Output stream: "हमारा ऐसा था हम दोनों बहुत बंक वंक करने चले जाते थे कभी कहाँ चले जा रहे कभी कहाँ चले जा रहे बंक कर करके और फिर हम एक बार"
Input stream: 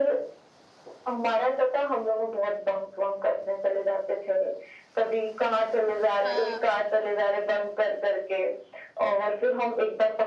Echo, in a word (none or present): present